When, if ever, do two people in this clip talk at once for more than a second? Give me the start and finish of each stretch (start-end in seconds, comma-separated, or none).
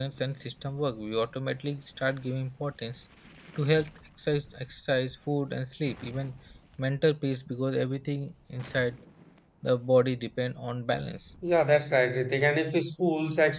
none